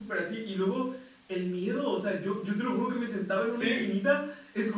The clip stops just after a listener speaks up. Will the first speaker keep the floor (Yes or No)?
Yes